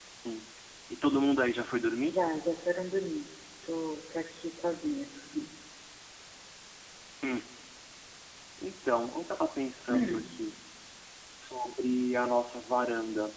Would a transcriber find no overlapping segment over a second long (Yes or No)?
Yes